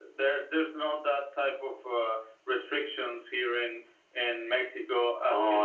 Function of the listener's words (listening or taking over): taking over